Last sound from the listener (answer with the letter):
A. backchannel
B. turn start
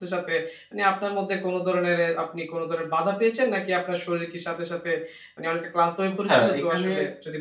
B